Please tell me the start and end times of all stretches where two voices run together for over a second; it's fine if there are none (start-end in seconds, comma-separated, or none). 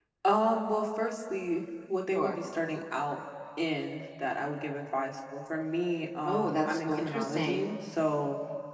6.3-7.7